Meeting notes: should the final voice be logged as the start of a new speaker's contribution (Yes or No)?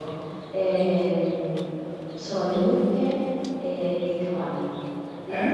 No